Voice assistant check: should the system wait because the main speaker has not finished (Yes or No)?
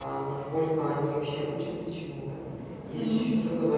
Yes